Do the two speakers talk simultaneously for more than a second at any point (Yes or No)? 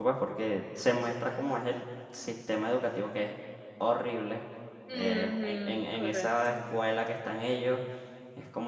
Yes